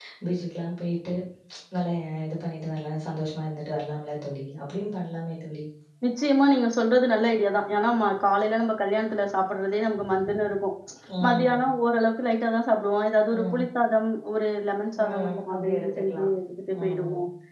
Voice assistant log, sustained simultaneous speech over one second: present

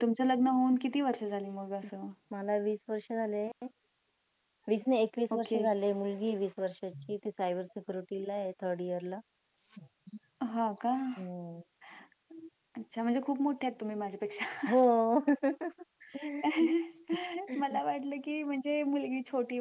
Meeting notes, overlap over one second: none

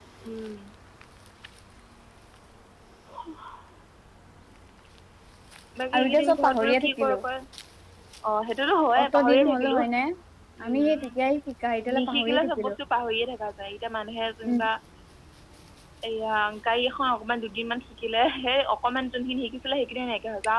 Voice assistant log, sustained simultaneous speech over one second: present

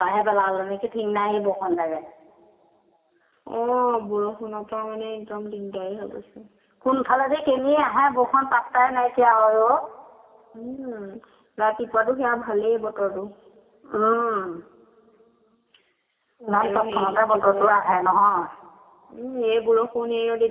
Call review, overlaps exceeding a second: present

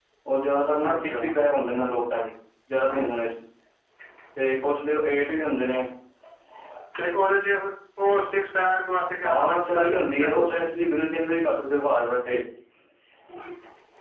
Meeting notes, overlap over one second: present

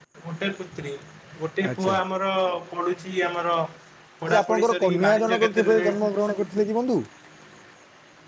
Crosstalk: present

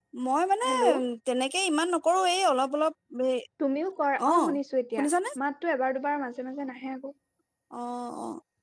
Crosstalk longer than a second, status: none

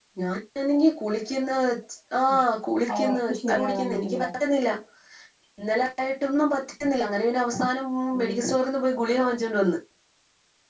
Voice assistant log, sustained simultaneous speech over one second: present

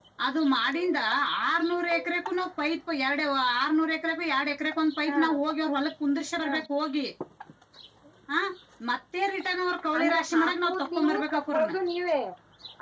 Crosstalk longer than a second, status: present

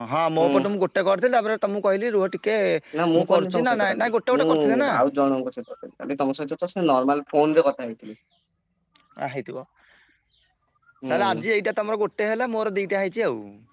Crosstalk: present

